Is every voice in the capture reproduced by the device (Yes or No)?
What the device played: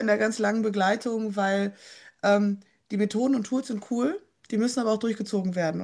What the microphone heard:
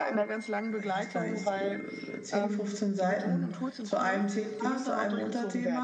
No